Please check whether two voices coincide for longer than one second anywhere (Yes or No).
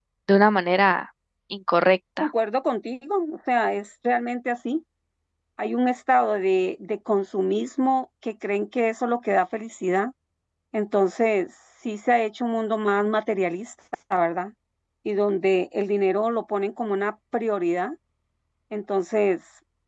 No